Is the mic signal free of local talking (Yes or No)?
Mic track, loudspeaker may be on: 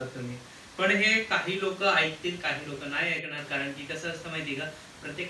No